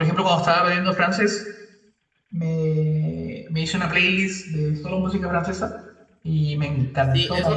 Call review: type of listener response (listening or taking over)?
taking over